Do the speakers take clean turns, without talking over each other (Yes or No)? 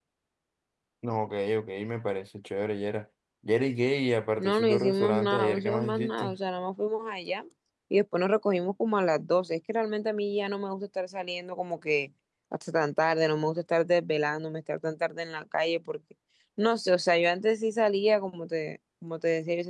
No